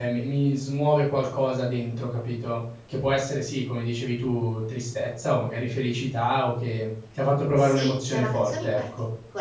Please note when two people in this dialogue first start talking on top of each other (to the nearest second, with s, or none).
8 s